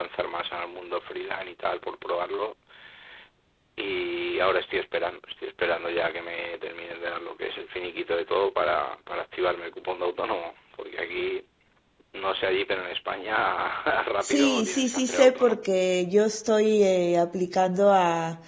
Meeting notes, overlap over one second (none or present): present